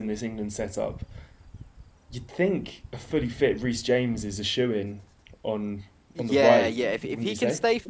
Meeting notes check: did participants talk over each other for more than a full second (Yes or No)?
Yes